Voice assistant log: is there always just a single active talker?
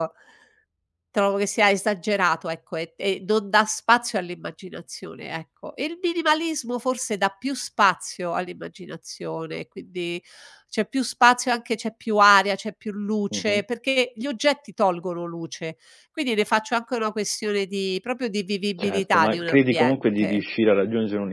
No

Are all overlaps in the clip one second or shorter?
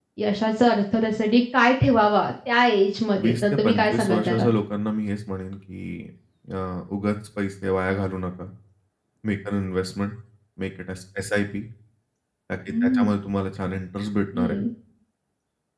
No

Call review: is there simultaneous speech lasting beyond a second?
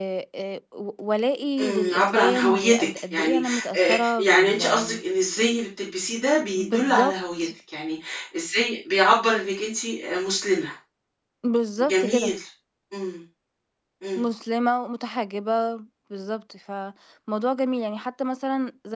Yes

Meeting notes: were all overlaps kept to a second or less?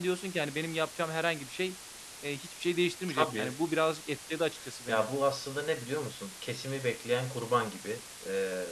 Yes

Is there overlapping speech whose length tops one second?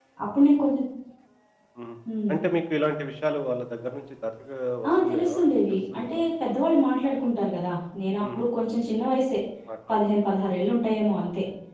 Yes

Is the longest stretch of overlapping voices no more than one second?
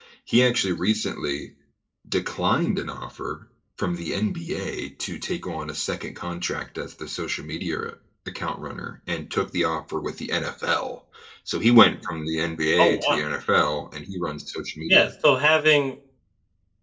Yes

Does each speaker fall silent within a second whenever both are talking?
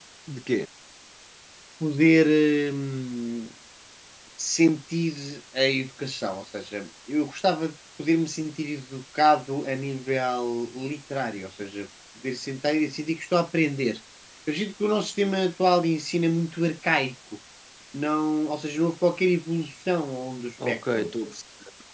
Yes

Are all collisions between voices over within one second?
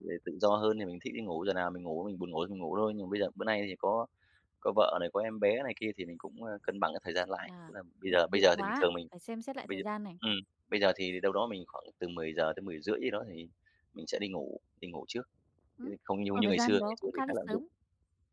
No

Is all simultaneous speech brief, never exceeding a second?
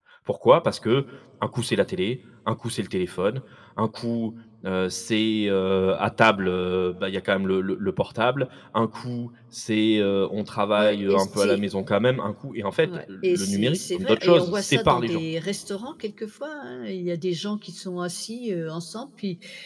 No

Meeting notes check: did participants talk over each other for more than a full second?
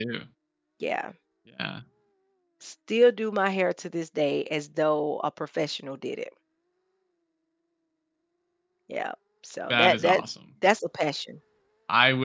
No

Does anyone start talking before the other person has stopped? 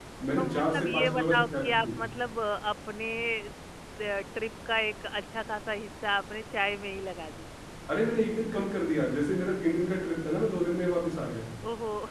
Yes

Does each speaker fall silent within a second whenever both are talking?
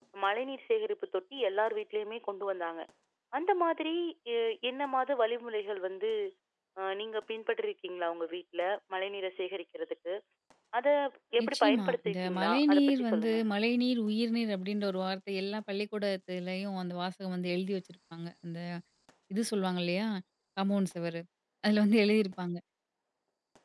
No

